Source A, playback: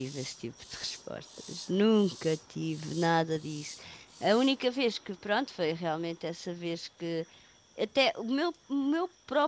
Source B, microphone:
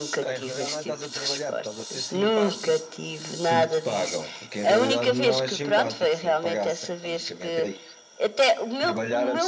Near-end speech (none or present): present